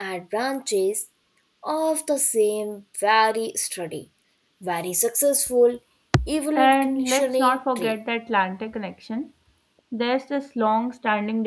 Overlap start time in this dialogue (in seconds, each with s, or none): 6.5 s